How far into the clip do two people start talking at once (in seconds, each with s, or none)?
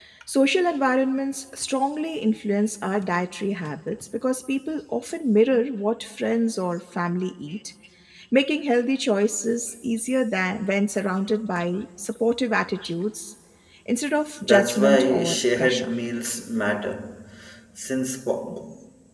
14.4 s